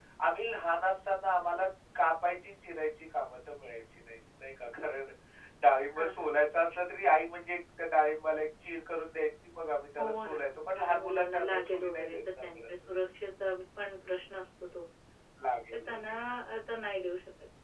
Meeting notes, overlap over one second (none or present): present